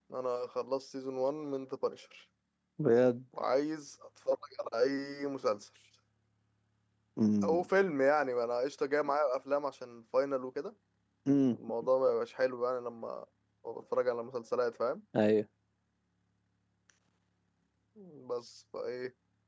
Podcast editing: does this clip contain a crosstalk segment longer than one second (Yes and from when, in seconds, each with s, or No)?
No